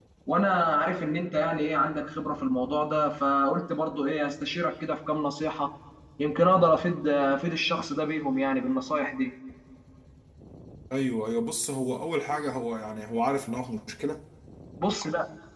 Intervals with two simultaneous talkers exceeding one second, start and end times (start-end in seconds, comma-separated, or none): none